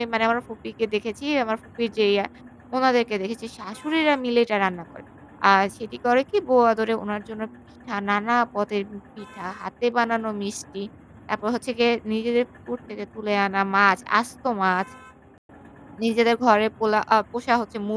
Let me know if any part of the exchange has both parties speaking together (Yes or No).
No